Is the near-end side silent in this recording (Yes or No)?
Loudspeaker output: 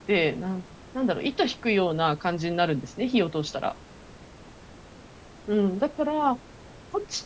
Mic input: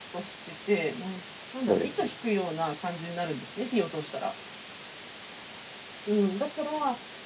No